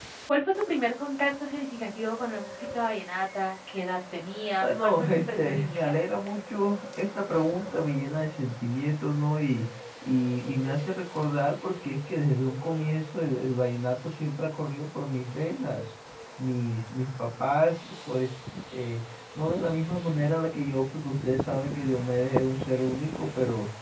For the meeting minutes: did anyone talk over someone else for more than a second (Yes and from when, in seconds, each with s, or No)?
Yes, from 4.6 s